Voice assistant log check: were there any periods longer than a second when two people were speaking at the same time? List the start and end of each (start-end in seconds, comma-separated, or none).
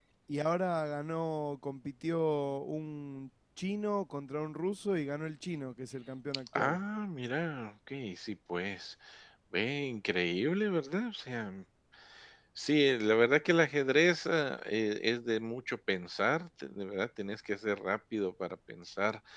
none